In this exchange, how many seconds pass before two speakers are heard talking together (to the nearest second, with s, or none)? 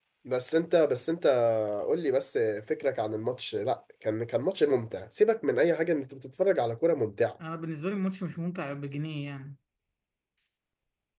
none